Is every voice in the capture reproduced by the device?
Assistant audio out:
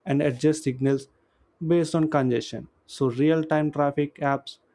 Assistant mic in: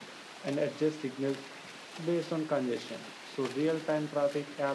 Yes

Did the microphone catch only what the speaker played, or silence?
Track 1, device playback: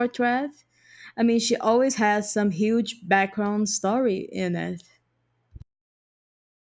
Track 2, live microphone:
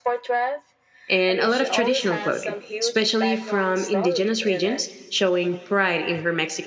No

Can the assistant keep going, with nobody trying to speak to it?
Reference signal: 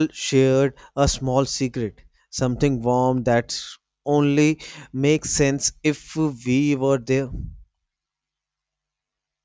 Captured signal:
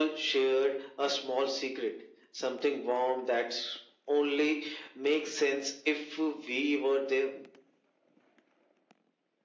Yes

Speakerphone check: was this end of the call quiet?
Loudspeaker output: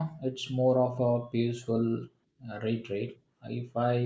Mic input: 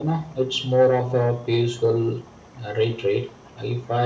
Yes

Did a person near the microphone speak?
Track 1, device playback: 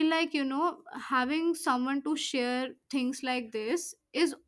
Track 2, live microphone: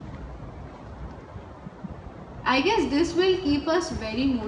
Yes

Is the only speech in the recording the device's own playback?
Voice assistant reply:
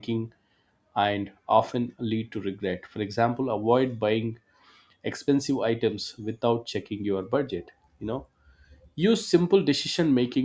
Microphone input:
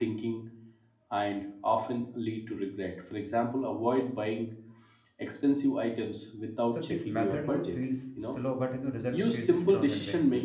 No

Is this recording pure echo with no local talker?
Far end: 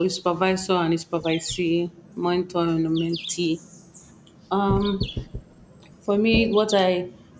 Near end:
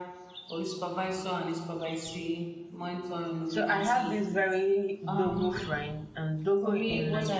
No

